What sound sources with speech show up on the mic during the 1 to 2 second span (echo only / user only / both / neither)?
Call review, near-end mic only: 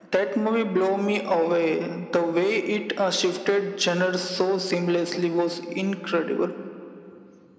echo only